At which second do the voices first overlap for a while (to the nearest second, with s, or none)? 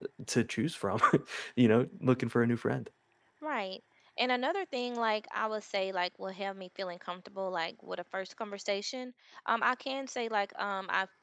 none